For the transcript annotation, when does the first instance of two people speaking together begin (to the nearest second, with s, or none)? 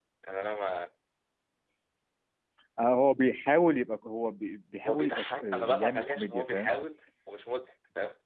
5 s